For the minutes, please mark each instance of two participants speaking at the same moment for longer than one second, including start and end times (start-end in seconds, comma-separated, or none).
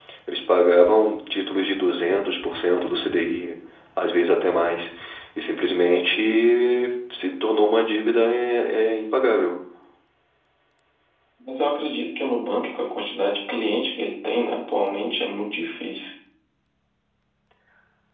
none